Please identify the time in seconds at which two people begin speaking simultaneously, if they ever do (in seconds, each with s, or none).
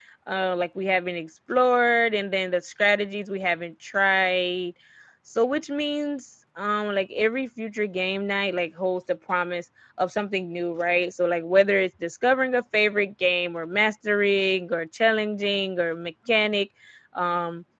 none